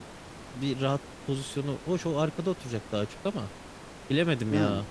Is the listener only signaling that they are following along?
Yes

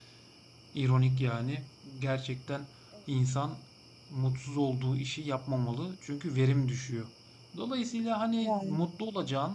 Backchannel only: Yes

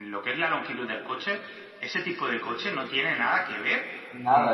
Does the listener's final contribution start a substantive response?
Yes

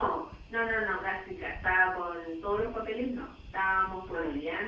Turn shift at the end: No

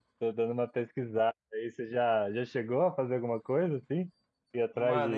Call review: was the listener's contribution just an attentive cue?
No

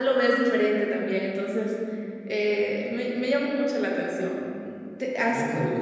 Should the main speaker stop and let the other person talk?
No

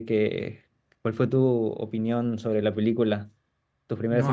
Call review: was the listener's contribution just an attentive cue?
No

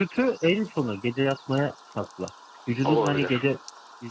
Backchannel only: Yes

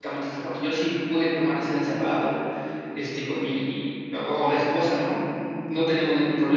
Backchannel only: Yes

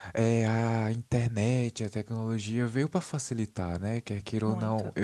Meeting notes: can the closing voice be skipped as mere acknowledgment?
Yes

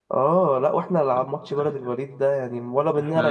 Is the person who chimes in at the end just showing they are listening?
Yes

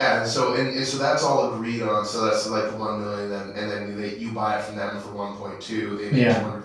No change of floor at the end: Yes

